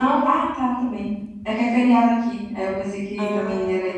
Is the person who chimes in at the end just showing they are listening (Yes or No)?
No